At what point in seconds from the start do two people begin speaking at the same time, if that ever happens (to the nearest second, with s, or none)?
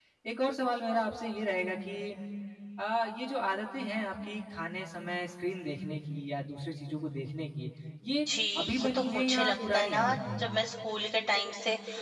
9 s